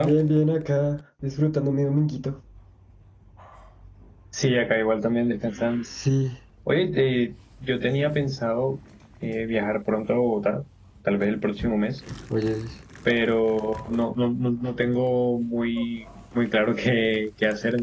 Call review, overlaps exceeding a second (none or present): none